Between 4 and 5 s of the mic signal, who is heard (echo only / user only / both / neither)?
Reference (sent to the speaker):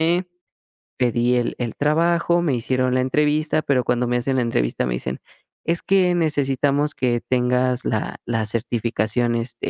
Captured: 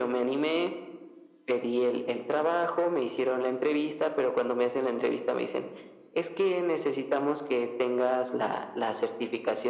echo only